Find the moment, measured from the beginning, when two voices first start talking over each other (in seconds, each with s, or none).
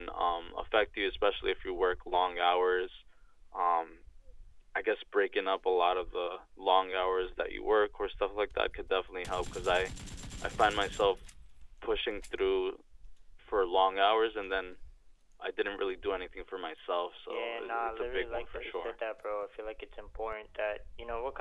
17.3 s